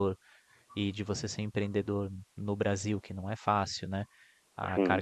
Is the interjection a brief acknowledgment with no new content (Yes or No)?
Yes